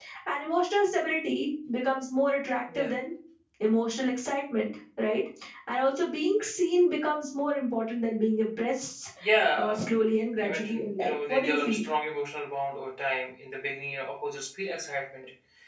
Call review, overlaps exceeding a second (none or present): present